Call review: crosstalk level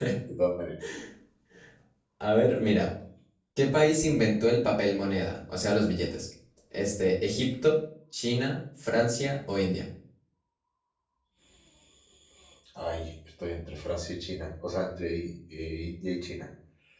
none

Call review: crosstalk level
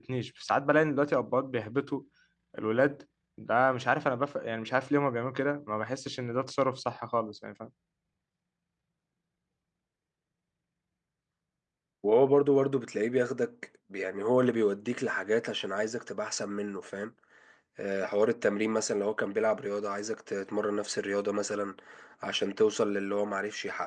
none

